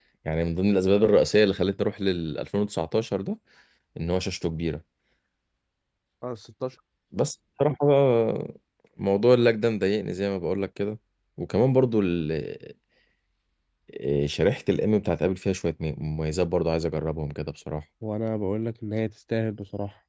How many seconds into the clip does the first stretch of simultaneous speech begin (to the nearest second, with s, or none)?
none